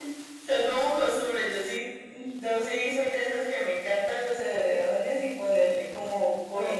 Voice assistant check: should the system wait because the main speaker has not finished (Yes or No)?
No